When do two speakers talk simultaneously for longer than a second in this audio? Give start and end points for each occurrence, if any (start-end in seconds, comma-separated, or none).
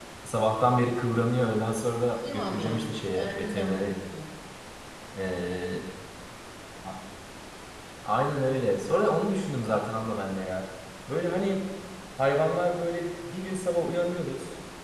2.1-4.0